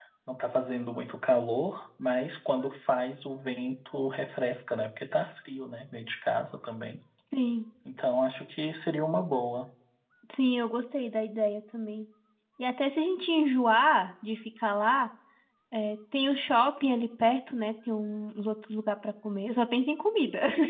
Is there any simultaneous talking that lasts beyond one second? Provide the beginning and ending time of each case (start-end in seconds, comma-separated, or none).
none